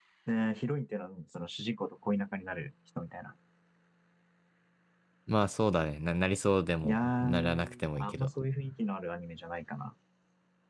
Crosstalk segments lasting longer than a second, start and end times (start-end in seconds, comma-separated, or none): 6.8-8.3